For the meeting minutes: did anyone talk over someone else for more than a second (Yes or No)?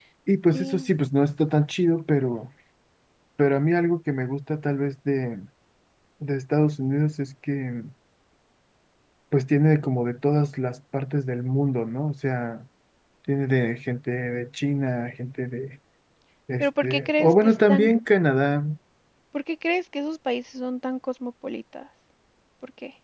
Yes